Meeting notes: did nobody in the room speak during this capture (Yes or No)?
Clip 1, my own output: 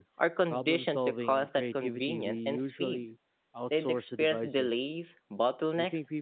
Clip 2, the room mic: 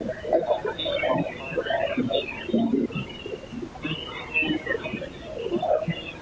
Yes